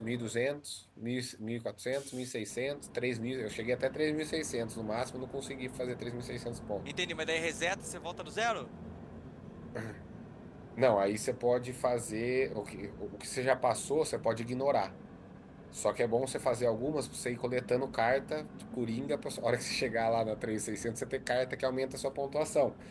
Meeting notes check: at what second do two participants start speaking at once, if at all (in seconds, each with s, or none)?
none